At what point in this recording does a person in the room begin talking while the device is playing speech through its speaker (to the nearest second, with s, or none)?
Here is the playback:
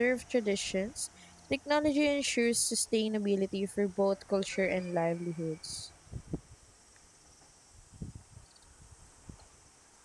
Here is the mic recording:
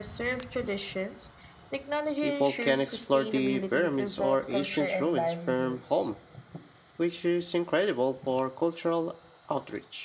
2 s